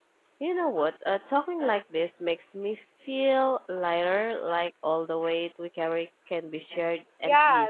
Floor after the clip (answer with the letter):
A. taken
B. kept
A